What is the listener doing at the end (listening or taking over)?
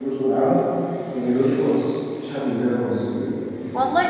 taking over